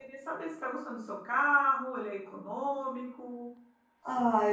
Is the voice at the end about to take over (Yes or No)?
Yes